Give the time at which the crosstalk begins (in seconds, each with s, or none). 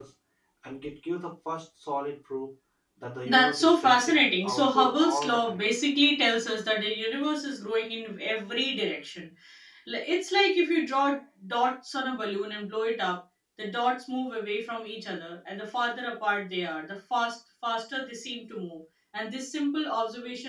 3.2 s